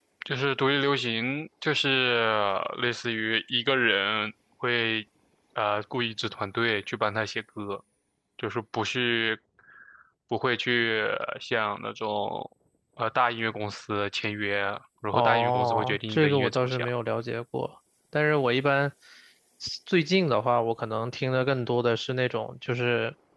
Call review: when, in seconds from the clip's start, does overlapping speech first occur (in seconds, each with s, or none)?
15.1 s